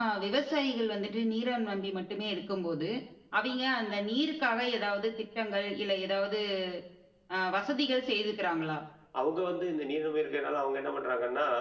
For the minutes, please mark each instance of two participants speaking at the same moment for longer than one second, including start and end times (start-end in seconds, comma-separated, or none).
none